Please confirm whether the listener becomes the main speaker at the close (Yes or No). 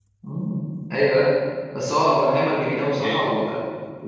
No